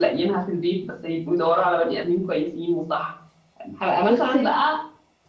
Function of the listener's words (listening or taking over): listening